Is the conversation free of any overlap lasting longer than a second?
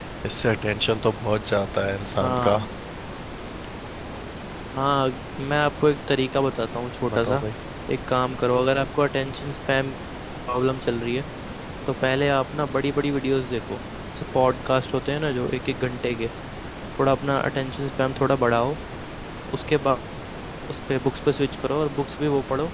Yes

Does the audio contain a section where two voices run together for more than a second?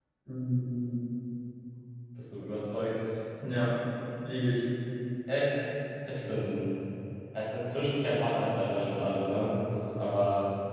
No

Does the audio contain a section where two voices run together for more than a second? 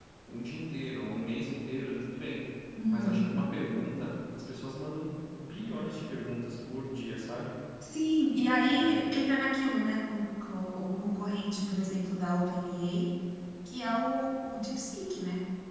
No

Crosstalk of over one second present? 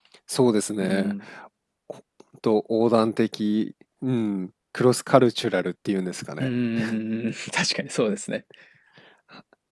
No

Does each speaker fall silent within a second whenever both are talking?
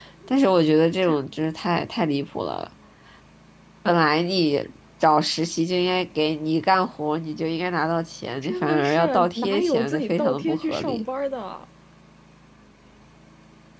No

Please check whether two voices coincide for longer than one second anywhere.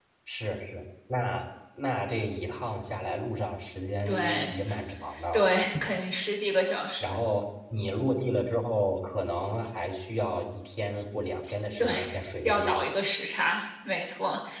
No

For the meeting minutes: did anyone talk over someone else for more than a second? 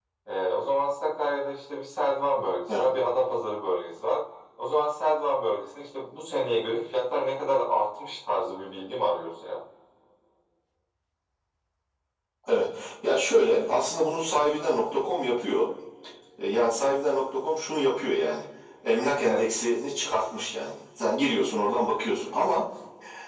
No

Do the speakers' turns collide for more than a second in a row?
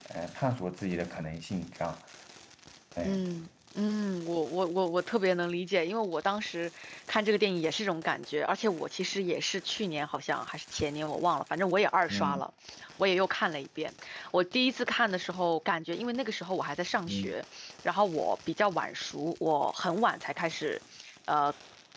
No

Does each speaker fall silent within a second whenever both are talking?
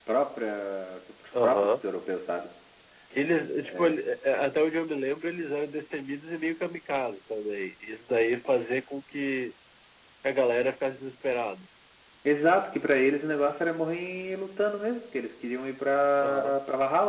Yes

